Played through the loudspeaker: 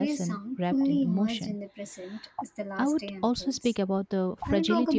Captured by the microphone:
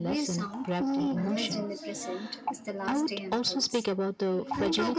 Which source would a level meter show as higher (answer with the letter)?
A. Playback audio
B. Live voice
A